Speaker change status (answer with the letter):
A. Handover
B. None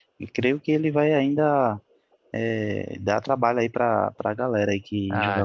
A